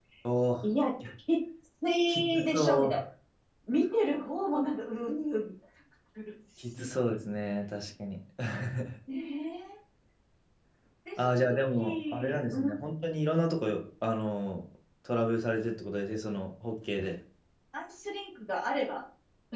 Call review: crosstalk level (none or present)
present